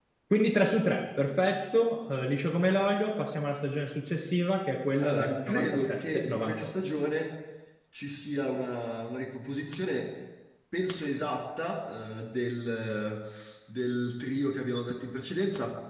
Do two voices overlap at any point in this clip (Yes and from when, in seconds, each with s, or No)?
Yes, from 5.0 s